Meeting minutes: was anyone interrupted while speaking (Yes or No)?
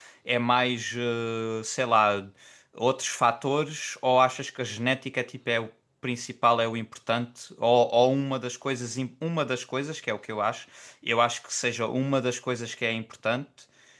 No